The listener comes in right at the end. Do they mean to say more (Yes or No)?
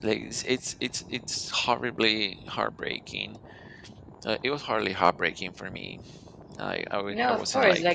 Yes